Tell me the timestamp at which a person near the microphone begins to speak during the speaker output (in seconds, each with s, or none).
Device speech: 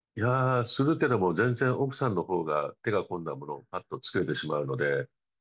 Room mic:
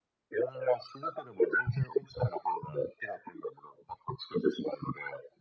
none